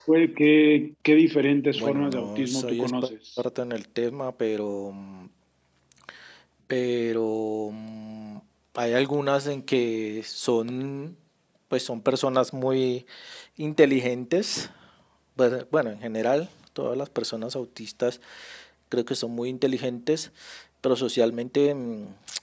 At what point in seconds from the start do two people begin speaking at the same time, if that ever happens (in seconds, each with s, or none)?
1.8 s